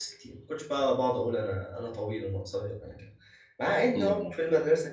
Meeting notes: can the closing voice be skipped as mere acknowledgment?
Yes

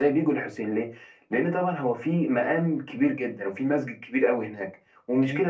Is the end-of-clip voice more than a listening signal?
No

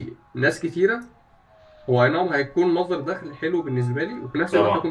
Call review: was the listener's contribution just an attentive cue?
Yes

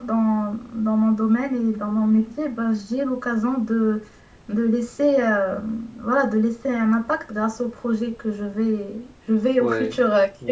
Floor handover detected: No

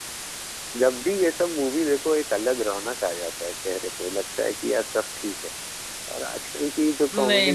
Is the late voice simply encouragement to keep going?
No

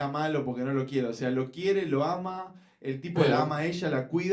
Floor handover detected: No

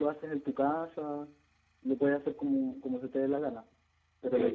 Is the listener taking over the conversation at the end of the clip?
Yes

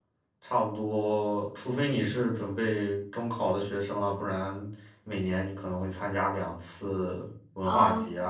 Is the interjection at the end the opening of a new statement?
Yes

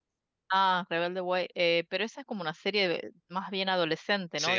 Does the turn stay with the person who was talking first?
No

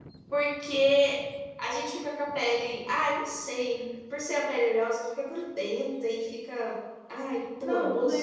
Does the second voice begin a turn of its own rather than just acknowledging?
Yes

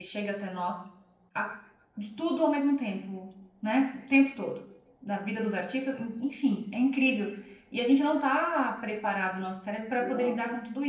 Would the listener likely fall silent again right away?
Yes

